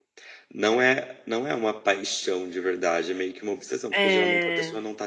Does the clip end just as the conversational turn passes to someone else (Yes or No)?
No